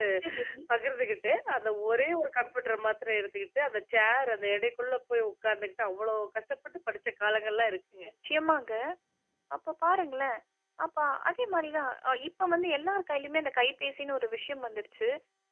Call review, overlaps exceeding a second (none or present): none